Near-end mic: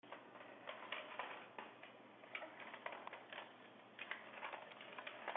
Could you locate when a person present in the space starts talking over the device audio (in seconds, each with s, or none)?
none